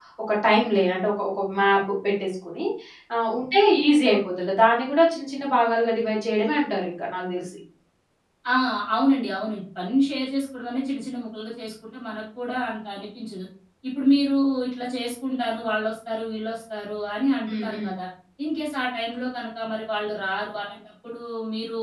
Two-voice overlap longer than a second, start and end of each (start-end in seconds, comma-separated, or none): none